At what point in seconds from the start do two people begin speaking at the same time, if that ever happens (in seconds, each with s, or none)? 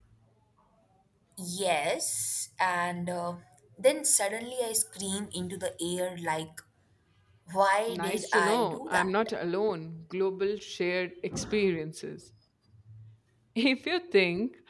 7.9 s